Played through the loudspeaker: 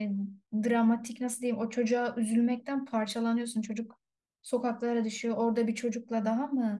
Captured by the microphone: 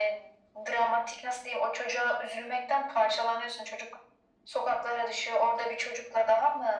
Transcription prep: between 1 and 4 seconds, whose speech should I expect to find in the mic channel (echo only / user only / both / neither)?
echo only